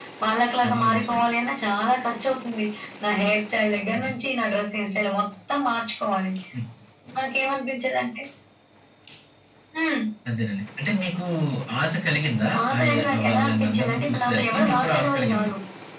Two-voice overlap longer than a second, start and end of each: 12.7-15.5

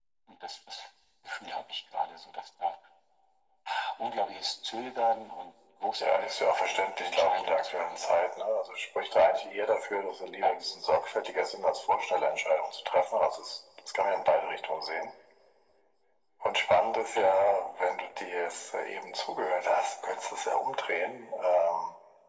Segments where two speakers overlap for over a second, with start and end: 6.0-8.1

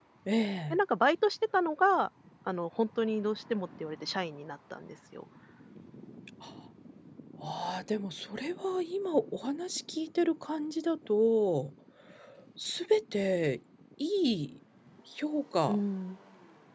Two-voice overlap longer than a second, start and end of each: none

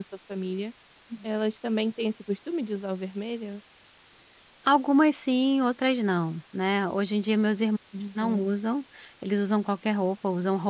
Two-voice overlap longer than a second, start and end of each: none

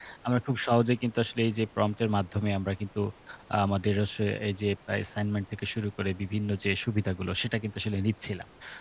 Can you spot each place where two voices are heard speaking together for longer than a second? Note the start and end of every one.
none

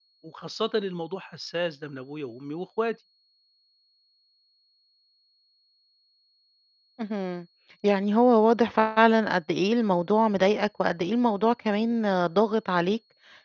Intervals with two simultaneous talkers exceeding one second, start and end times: none

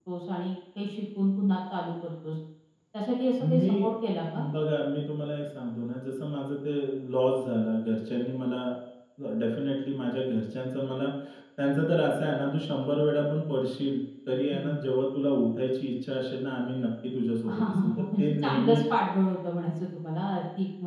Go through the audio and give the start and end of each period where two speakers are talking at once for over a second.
17.5-18.8

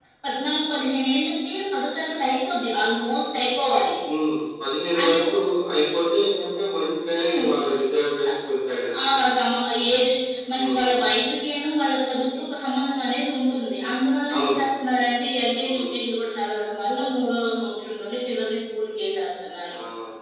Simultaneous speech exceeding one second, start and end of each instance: none

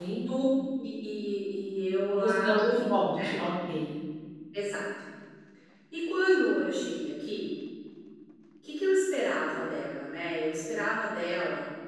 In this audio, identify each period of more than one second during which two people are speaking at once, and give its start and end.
2.1-3.3

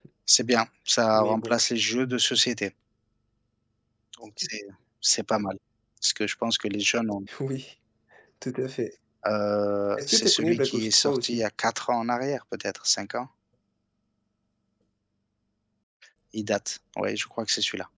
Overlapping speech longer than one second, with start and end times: 10.0-11.4

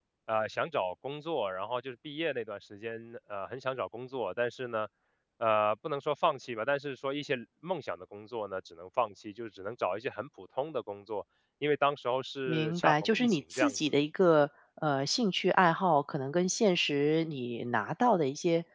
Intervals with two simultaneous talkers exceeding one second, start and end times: 12.5-13.8

